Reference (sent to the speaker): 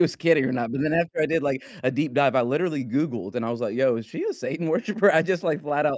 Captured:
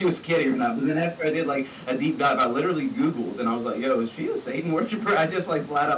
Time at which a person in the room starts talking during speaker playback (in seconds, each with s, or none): none